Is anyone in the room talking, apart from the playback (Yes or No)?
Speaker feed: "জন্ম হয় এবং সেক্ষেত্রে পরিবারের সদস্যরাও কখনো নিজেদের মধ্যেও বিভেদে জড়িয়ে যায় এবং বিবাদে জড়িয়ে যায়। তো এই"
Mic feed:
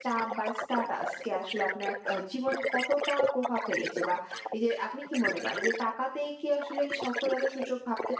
Yes